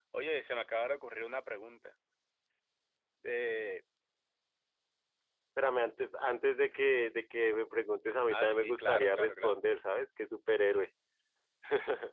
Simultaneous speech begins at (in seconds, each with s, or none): 8.3 s